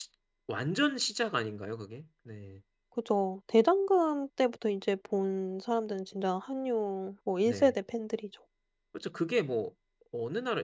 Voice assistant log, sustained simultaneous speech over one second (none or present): none